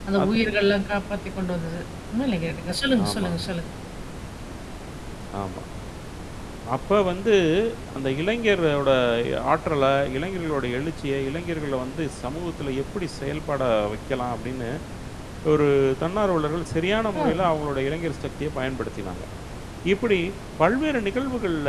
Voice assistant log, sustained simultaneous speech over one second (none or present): none